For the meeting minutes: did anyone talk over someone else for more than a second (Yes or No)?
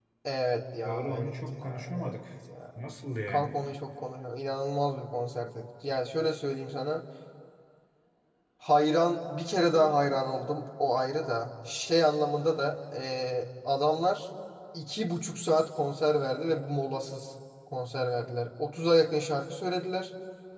Yes